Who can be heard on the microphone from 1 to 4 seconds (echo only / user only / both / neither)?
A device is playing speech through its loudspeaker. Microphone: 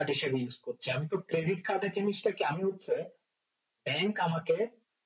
echo only